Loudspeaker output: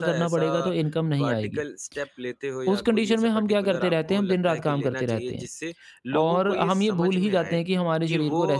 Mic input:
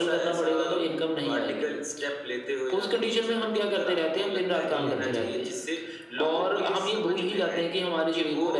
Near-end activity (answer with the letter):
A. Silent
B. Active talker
B